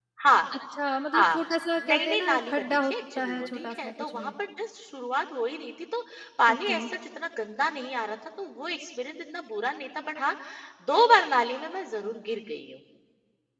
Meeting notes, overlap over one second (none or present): present